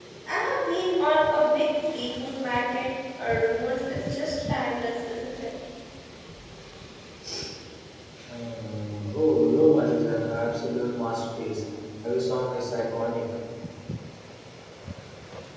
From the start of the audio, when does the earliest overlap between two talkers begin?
none

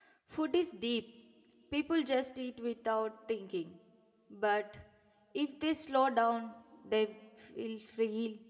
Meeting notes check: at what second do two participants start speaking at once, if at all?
none

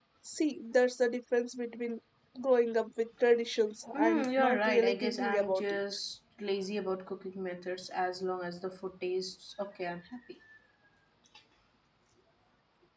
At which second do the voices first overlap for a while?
3.9 s

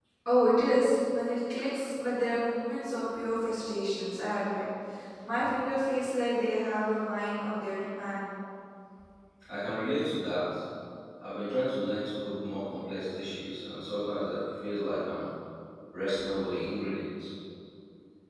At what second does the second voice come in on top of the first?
none

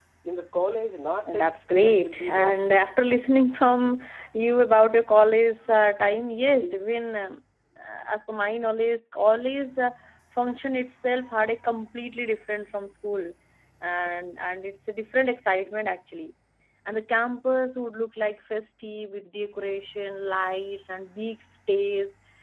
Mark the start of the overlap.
1.2 s

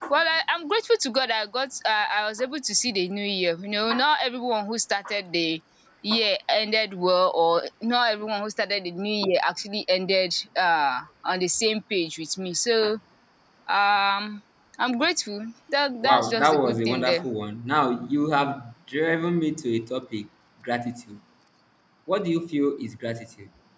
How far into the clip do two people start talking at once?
16.0 s

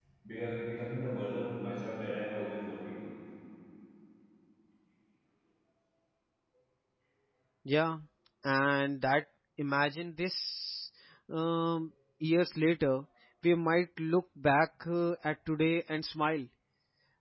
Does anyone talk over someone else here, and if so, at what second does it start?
none

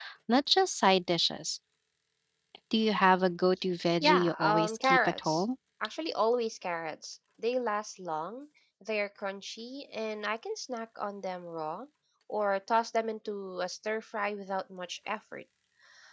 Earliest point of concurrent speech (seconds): 4.0 s

